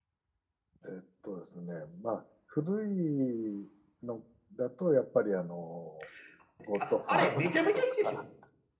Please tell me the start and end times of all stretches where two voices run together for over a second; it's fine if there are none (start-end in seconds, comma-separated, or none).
6.8-8.2